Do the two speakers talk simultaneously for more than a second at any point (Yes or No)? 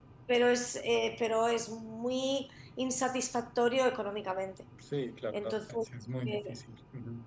No